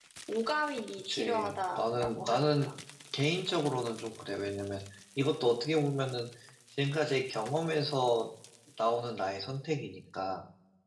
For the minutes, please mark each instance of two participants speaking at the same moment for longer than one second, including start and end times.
1.1-2.7

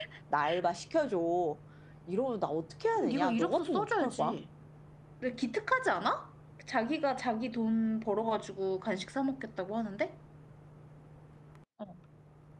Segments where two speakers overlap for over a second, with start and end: 3.0-4.4

